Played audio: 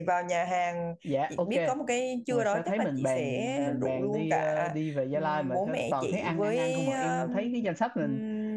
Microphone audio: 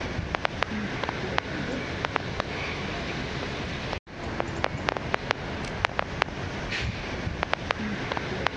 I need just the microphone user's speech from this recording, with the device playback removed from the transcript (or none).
none